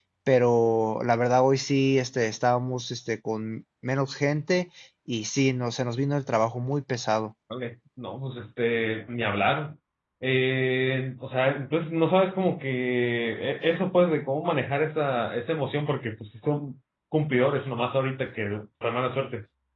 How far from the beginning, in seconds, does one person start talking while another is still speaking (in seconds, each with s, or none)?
none